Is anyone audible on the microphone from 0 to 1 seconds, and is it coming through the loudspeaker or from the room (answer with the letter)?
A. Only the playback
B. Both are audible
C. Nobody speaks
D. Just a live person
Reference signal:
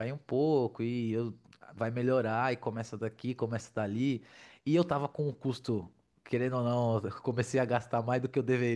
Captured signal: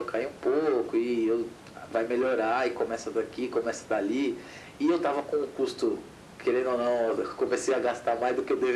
A